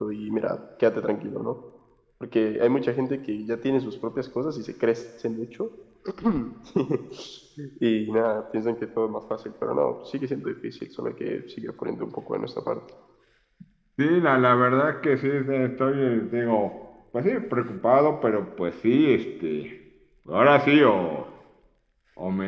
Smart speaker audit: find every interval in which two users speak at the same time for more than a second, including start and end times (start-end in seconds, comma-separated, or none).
none